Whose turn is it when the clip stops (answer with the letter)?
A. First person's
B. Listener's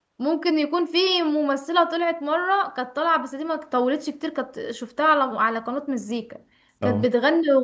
A